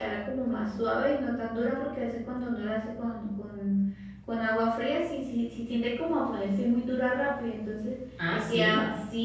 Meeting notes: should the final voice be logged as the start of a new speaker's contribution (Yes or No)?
No